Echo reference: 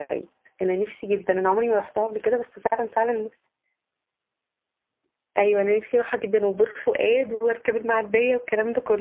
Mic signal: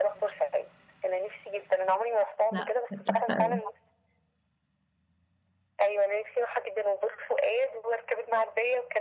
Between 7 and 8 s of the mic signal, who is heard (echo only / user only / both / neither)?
echo only